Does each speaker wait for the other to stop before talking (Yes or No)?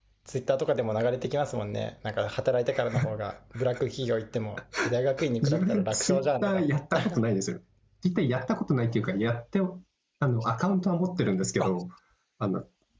No